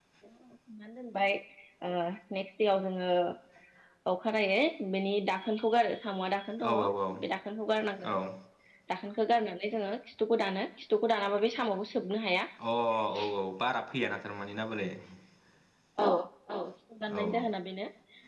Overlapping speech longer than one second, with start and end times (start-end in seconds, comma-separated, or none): none